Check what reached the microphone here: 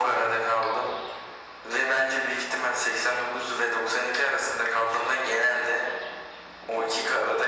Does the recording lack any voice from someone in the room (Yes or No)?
Yes